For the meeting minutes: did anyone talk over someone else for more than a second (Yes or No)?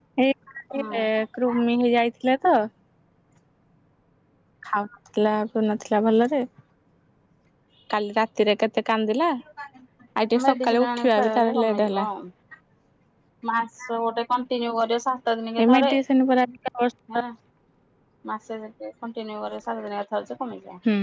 Yes